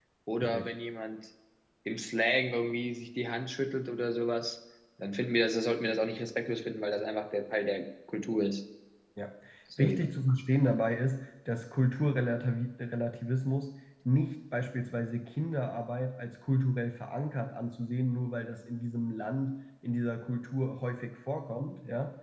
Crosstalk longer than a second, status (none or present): none